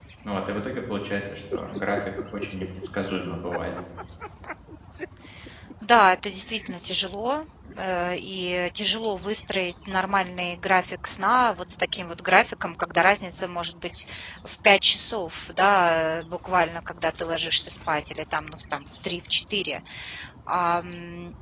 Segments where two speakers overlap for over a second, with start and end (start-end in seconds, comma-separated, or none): none